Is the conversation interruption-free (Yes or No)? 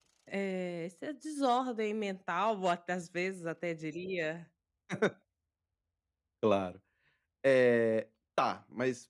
Yes